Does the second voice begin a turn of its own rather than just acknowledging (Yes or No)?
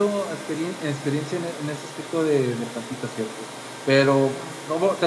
No